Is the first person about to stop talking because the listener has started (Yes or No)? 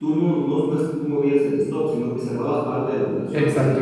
Yes